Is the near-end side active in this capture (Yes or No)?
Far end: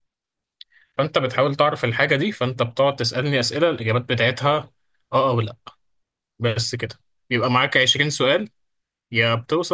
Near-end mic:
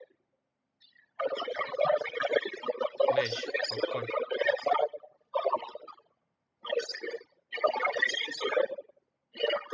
Yes